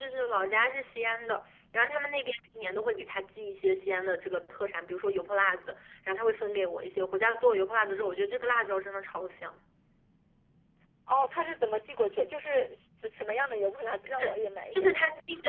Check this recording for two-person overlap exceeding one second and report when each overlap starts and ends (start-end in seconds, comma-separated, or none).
none